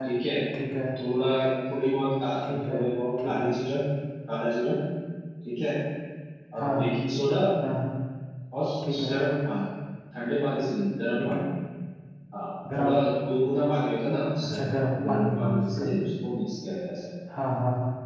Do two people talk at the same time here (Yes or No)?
Yes